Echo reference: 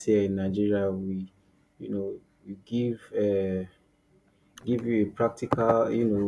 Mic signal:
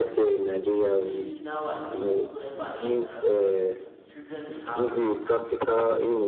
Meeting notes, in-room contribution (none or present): present